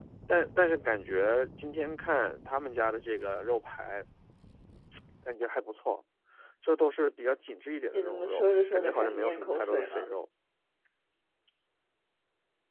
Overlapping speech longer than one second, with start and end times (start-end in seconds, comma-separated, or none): 7.9-10.1